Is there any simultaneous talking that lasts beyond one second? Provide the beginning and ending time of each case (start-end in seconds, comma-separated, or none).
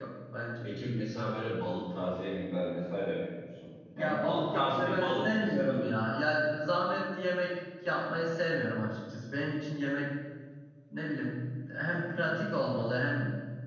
4.0-5.8